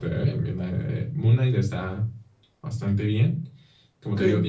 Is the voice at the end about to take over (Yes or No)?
No